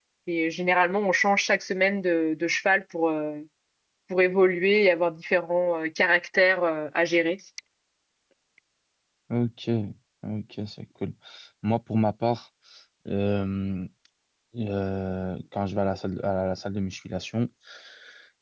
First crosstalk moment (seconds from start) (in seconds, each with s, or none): none